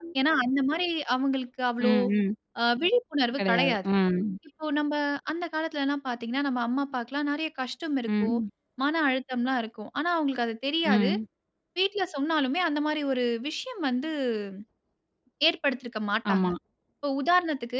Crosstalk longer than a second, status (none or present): none